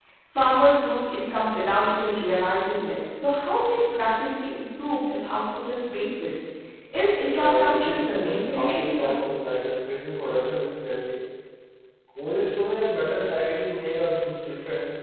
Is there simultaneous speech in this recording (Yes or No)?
Yes